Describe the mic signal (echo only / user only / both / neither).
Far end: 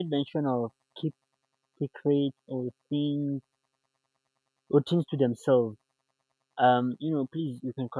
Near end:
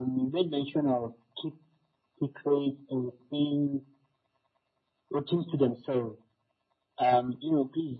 echo only